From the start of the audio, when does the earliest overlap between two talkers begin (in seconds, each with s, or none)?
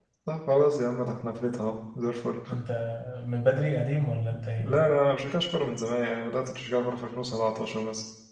none